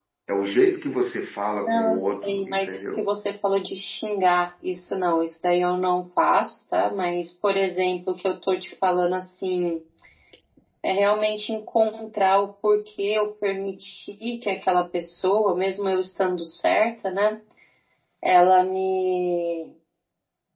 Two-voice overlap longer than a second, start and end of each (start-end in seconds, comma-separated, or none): 1.7-3.0